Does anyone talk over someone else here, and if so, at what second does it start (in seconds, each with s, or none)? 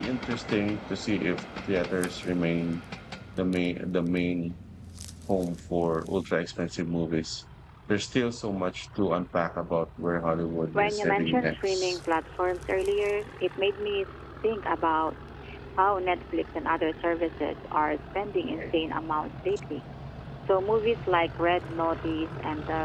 10.8 s